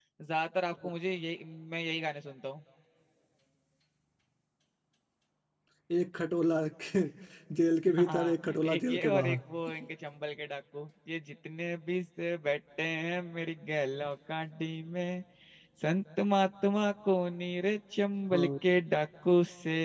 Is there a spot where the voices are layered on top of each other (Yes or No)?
Yes